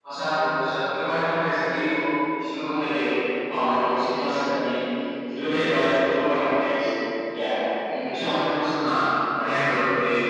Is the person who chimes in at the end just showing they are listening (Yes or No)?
Yes